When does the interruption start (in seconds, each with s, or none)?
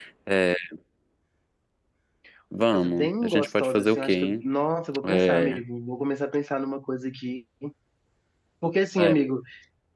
2.7 s